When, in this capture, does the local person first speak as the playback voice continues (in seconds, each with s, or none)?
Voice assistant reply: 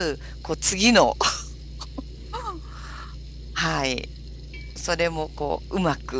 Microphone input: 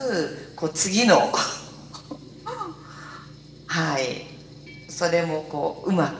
none